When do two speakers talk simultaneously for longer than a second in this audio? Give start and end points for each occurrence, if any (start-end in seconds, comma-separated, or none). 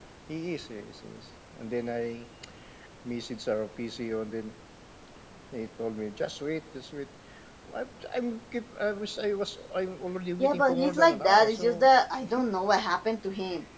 10.4-11.9